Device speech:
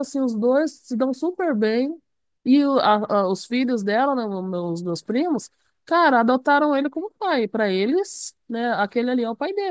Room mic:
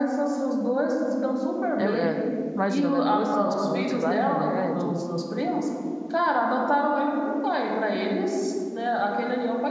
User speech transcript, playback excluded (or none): é, é, imagina, né? Dois transplantes, vários remédios.